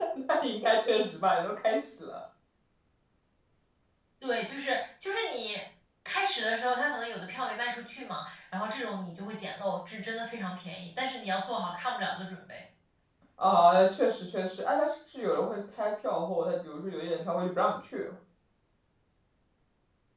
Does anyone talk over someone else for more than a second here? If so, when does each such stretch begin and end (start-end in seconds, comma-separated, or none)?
none